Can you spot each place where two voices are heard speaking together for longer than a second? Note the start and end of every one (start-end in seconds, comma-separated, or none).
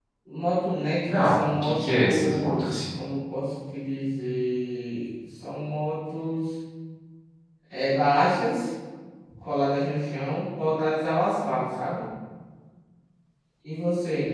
1.1-2.6